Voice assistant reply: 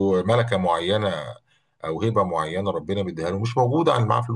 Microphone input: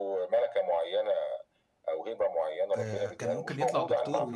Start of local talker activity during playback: 2.8 s

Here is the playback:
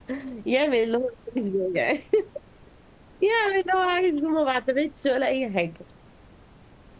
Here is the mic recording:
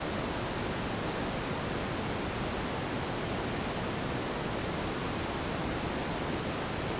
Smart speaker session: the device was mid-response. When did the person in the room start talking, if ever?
none

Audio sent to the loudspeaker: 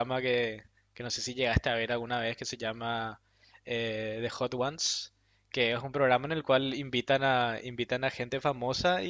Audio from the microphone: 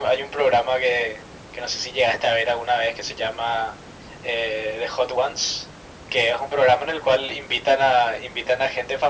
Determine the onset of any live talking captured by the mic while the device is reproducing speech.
none

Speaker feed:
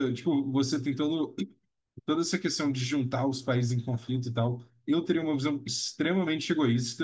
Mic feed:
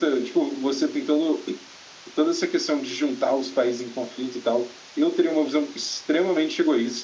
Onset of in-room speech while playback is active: none

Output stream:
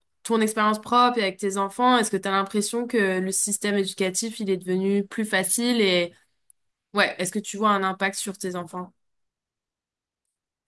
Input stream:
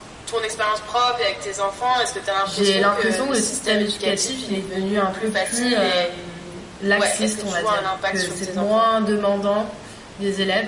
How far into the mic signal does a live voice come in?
2.4 s

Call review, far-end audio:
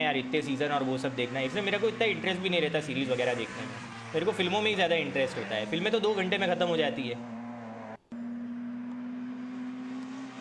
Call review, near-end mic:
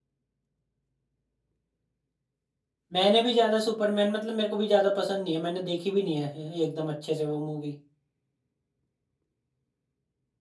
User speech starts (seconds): 2.9 s

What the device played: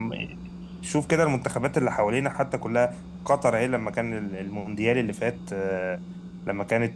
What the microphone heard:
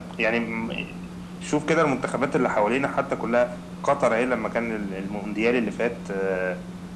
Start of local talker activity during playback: none

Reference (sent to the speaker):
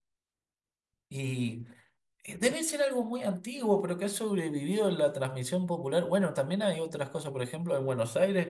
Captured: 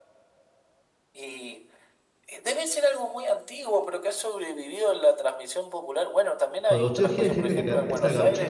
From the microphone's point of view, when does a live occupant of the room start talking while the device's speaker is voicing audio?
6.7 s

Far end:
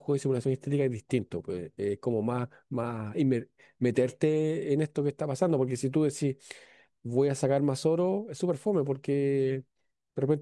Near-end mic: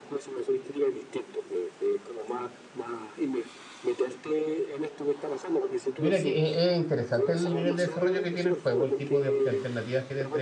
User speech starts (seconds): 6.0 s

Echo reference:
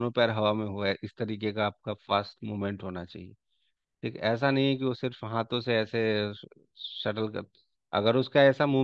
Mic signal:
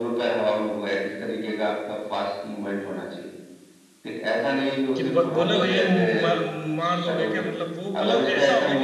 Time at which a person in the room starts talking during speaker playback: 5.0 s

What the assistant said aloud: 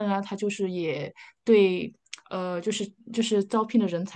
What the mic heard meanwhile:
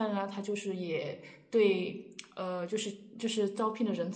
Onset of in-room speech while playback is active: none

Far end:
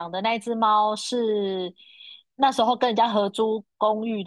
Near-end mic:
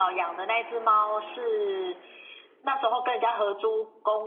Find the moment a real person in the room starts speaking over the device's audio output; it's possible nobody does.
none

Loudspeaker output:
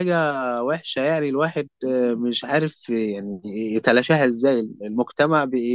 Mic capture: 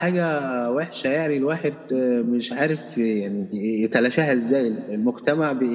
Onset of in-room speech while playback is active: none

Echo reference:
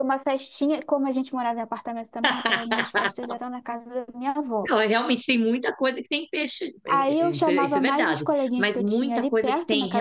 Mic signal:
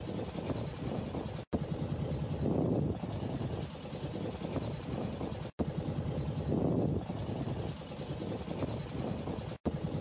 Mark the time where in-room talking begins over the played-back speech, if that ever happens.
none

